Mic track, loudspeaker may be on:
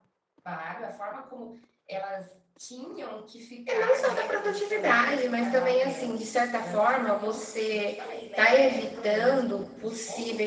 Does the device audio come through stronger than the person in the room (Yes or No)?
No